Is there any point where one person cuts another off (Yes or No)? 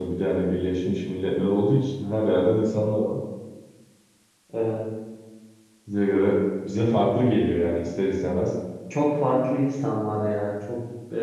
No